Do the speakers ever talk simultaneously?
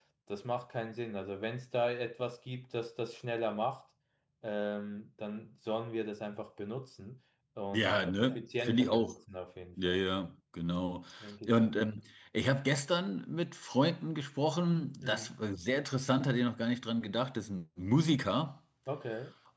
Yes, from 7.7 s

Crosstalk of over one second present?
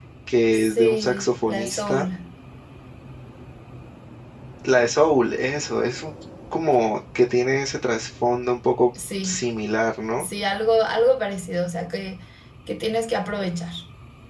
Yes, from 0.5 s

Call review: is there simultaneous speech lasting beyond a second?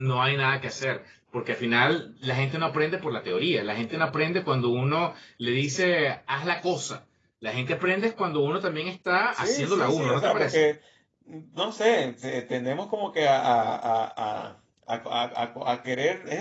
Yes, from 9.3 s

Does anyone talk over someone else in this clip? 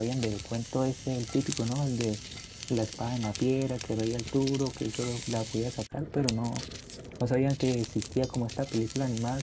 No

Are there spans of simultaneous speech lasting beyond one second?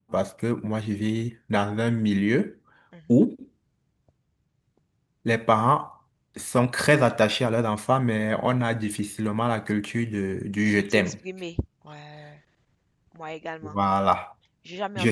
No

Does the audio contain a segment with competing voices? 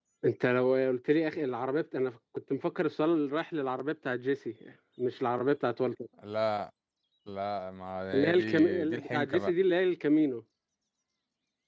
Yes, from 8.1 s

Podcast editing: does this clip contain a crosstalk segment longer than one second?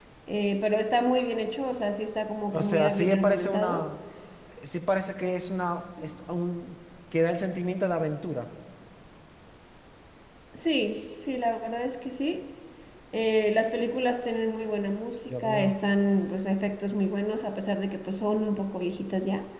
Yes, from 2.5 s

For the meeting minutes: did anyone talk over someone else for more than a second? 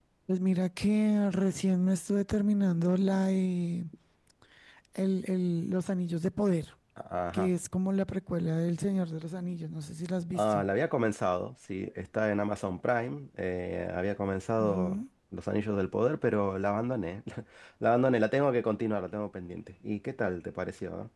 No

